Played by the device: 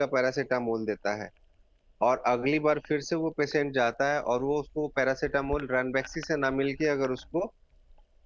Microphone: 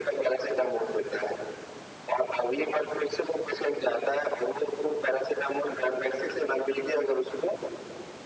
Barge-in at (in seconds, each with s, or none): none